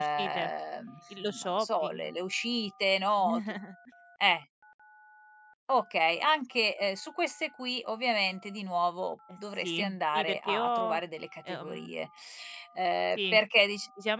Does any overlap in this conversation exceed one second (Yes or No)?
Yes